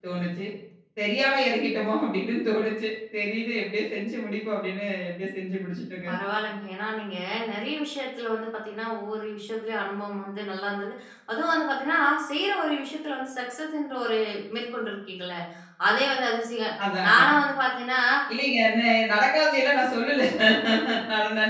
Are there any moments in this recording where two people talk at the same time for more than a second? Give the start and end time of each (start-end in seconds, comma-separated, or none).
none